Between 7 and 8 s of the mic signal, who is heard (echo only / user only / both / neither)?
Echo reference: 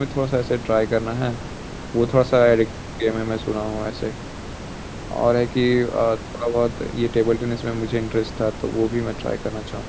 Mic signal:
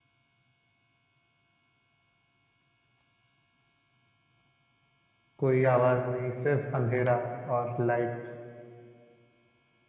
user only